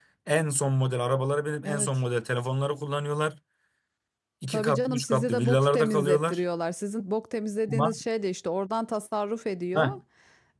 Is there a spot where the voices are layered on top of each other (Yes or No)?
Yes